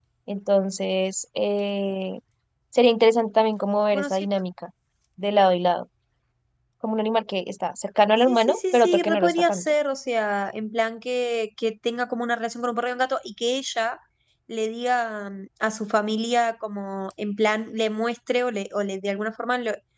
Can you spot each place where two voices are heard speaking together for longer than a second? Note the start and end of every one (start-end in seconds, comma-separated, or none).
8.3-9.7